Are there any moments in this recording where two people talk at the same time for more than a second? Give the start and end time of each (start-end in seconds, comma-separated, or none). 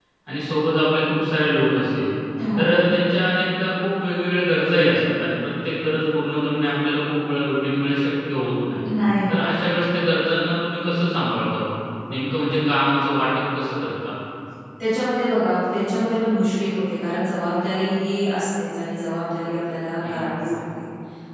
none